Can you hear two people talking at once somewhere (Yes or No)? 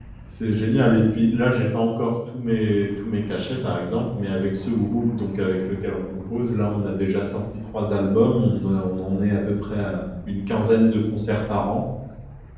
No